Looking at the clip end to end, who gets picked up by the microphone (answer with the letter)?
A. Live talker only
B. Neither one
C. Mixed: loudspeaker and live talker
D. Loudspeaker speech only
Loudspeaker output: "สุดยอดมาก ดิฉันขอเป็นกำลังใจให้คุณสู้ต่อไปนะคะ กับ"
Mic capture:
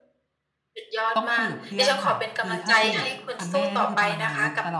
C